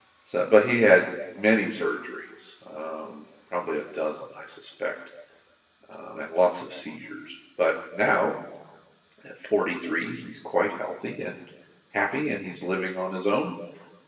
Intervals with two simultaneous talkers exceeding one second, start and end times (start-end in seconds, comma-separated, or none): none